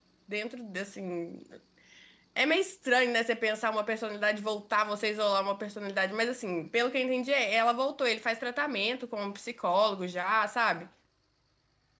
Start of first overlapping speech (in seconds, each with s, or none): none